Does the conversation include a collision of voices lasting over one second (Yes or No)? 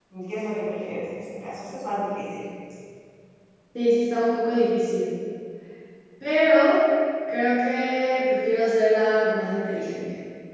No